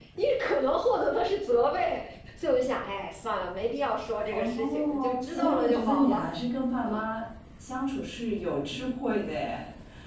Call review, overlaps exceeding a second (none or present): present